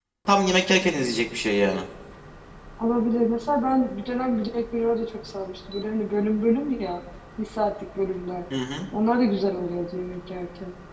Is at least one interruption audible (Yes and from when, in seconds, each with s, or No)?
No